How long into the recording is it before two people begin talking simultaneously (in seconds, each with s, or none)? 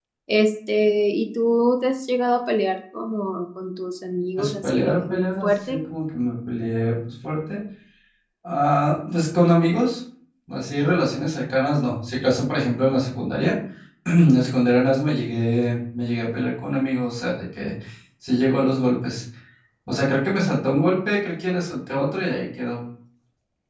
4.4 s